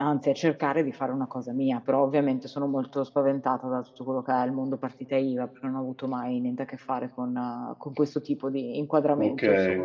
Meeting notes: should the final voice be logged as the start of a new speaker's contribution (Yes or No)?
Yes